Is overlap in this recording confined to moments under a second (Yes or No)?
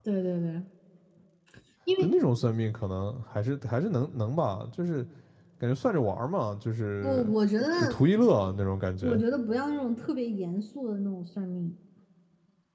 Yes